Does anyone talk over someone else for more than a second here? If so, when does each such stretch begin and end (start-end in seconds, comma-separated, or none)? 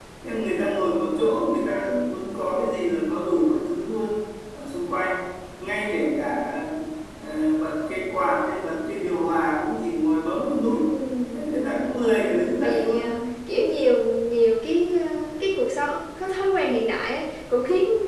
11.5-13.2